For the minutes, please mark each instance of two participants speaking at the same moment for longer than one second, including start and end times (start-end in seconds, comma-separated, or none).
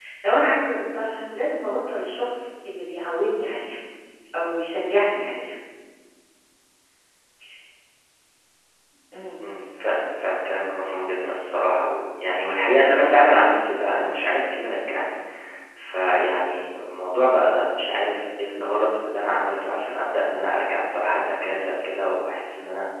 none